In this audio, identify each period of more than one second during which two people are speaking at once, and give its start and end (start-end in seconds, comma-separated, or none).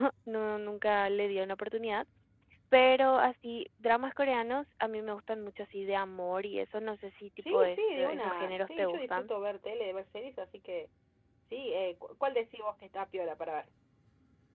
7.5-9.3